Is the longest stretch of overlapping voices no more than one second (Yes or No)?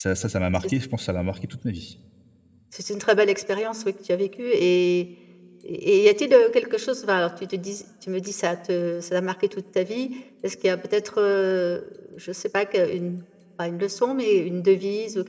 Yes